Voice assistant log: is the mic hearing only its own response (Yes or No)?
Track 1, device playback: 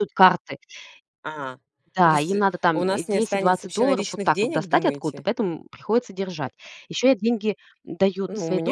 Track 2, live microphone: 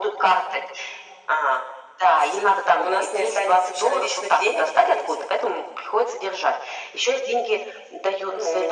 Yes